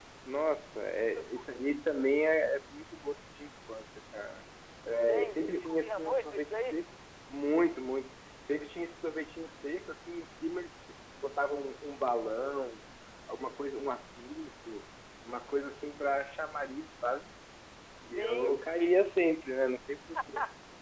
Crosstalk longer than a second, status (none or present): present